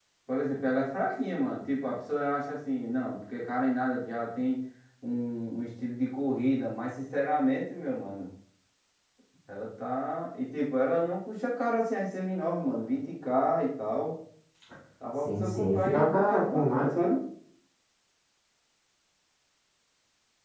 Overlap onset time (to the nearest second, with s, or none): 15 s